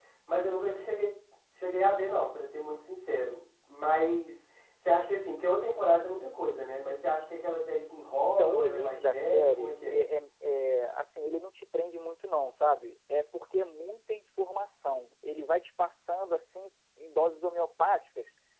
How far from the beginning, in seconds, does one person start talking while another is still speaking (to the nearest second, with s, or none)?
8 s